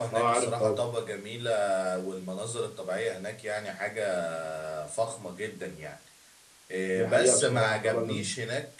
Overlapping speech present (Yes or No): Yes